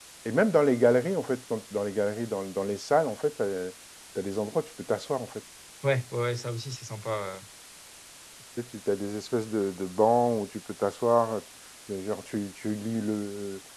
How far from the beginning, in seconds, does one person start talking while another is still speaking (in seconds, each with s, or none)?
none